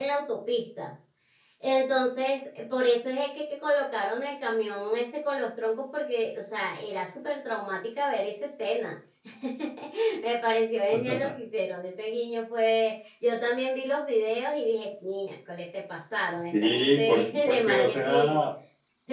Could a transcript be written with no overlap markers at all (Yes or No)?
No